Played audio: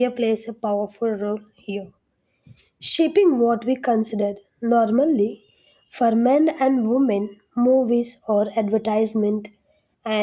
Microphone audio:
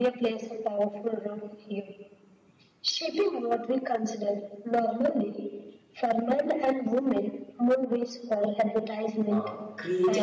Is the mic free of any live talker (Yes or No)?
No